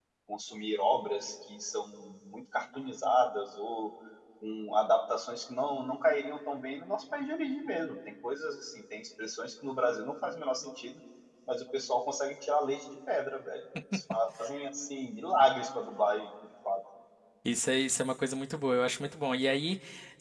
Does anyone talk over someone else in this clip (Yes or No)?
No